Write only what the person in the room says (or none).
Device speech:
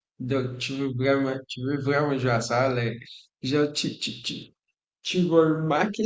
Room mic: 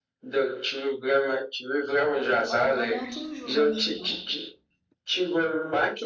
oui, on, on a toujours un choix.